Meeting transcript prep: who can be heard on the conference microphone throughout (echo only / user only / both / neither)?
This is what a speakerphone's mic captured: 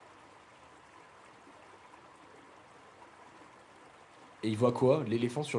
user only